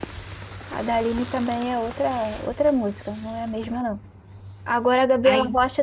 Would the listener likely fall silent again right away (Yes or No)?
Yes